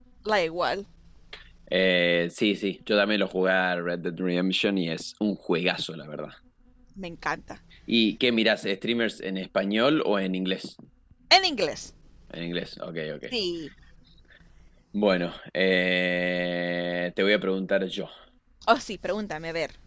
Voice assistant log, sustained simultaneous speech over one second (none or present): none